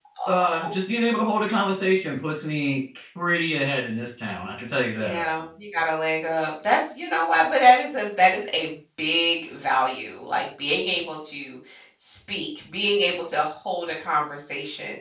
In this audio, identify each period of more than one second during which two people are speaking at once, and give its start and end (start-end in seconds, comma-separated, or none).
none